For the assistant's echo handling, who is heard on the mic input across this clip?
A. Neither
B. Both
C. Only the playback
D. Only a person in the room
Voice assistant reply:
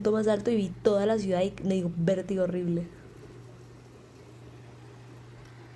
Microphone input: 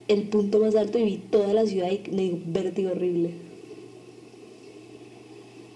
C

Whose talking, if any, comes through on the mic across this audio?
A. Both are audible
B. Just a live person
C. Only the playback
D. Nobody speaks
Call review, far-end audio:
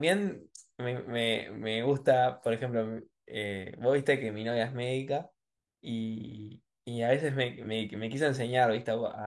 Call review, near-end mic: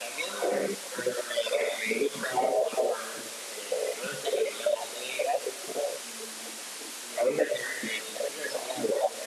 C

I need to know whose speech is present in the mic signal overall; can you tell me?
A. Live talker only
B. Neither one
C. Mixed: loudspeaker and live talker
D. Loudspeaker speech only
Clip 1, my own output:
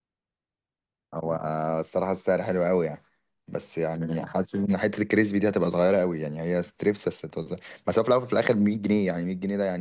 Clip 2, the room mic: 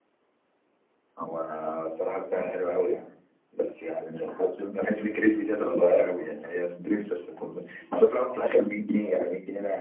D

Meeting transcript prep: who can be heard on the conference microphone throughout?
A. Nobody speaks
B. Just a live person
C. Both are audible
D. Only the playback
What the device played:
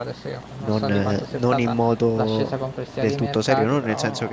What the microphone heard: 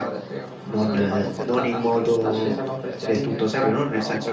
C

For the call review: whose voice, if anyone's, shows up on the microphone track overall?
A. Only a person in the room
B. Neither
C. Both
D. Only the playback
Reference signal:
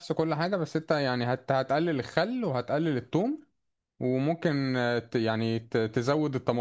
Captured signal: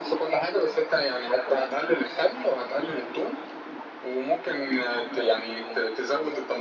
D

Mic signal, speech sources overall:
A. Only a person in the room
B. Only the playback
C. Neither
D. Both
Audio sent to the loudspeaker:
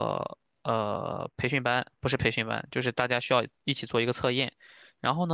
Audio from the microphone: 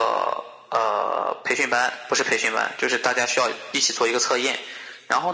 B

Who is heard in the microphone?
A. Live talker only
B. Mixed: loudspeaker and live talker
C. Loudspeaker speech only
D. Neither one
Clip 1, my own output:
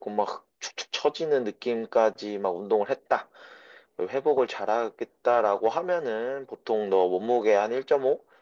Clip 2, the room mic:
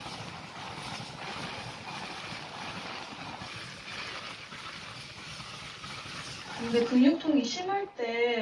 A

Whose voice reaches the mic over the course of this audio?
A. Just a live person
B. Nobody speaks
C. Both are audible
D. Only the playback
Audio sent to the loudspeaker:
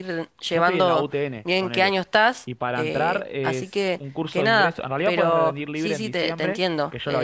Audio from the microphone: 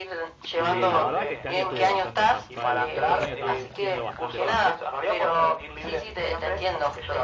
C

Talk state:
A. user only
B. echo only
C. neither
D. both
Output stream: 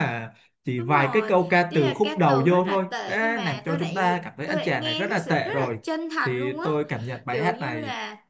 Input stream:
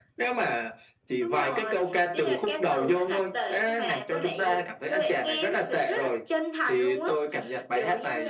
B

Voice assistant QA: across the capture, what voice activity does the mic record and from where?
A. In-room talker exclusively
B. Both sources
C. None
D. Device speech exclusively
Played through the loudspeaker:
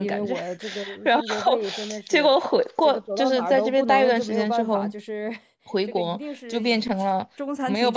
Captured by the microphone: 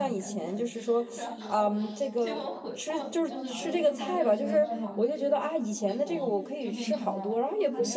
B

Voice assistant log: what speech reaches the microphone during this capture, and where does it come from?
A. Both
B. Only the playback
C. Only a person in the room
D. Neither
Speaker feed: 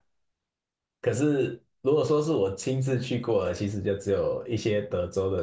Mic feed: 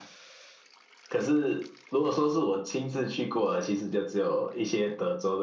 B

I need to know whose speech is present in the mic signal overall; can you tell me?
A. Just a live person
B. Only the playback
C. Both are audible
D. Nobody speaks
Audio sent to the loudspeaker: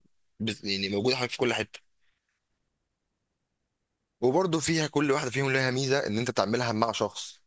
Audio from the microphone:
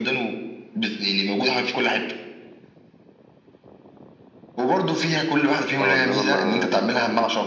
C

